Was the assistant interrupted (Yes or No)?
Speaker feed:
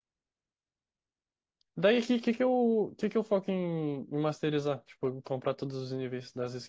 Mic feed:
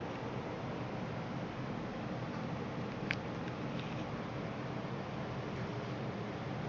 No